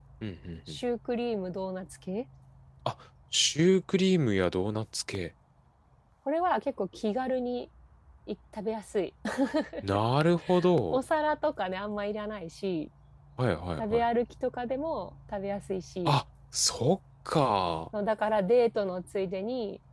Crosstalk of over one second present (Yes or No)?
No